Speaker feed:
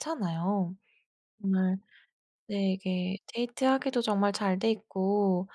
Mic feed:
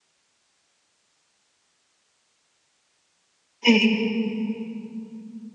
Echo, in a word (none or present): none